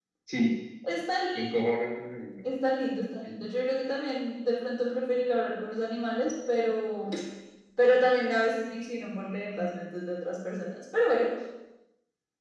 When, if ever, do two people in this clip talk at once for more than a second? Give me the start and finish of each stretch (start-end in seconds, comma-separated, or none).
none